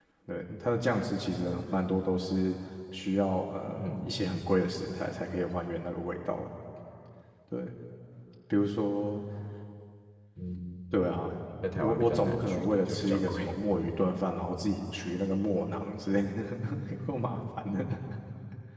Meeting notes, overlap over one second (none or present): present